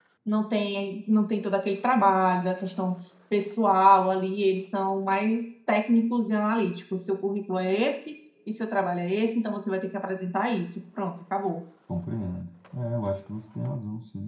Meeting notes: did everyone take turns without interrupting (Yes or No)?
Yes